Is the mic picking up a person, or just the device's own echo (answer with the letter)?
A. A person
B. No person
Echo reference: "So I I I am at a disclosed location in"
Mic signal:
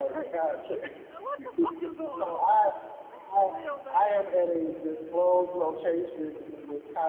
A